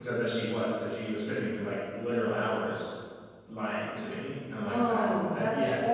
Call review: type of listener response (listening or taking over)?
taking over